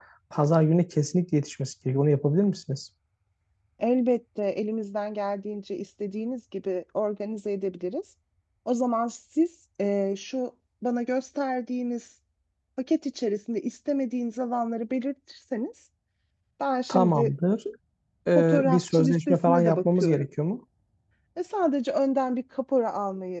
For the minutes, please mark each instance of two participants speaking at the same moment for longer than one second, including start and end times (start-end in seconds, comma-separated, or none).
18.4-20.2